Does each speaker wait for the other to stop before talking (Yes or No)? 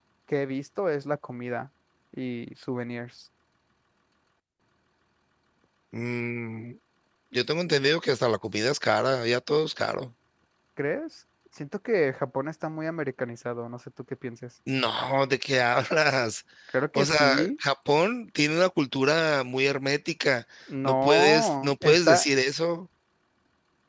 No